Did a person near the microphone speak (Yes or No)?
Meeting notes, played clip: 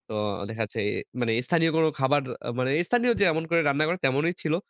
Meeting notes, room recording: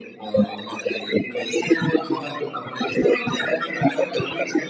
No